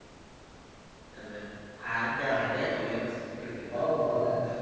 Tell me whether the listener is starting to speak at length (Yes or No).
Yes